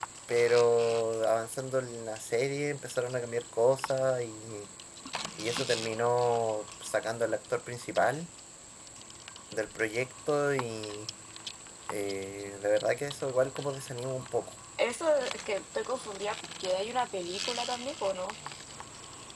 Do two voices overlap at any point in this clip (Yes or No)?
No